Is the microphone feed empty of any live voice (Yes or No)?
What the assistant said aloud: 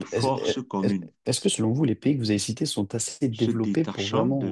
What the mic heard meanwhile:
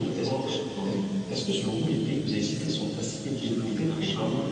Yes